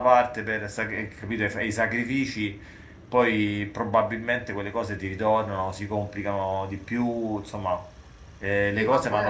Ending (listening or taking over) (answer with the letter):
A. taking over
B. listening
A